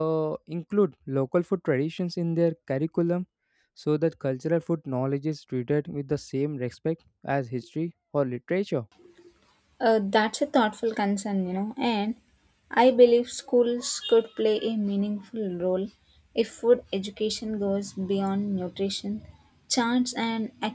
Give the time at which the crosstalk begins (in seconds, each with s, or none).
none